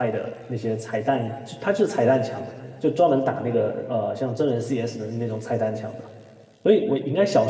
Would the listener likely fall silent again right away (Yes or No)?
Yes